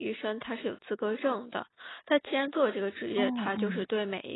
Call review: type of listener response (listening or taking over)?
listening